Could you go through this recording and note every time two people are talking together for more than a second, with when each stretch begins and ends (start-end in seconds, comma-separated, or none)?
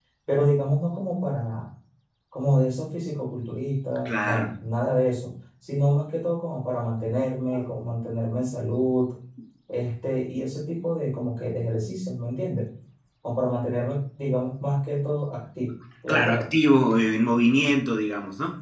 none